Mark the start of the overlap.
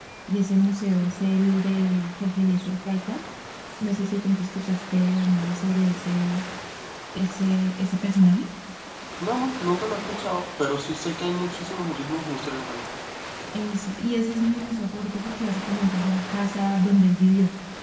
none

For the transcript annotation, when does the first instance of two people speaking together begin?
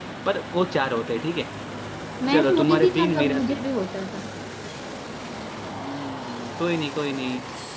2 s

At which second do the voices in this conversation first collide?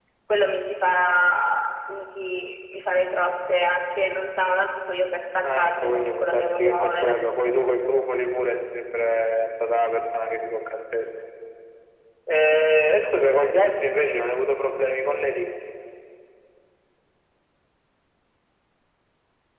5 s

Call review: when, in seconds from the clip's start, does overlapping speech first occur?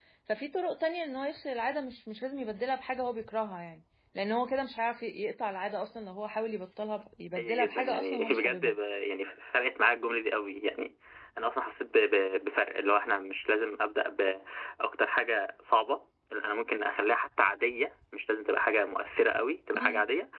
7 s

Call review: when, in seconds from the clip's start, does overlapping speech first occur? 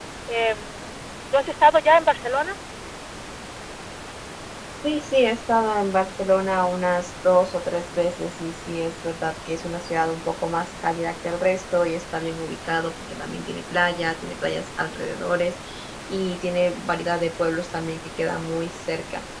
none

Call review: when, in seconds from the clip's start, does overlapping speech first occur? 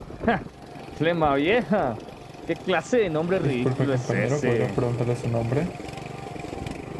3 s

